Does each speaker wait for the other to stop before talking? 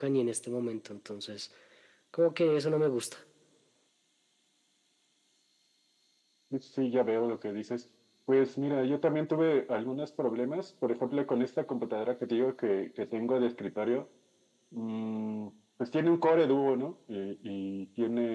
Yes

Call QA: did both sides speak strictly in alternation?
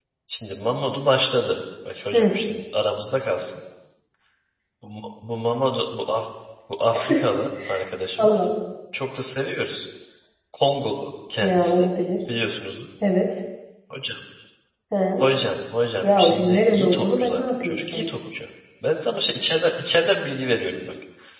No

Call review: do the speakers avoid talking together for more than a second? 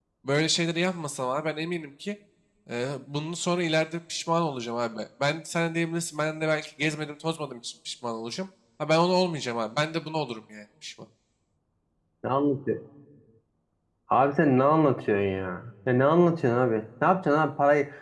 Yes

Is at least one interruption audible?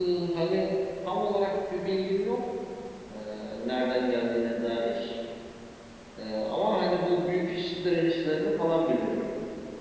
No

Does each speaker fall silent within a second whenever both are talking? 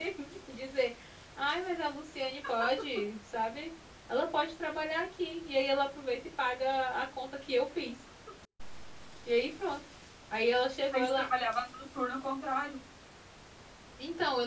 Yes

